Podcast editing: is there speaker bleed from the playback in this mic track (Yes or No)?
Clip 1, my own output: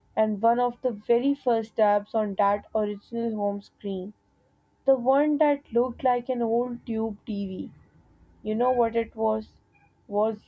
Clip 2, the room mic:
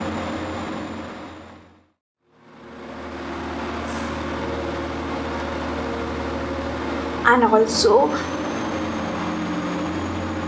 No